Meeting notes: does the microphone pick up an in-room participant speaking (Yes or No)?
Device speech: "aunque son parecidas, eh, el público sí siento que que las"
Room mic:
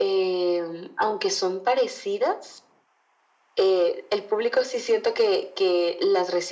No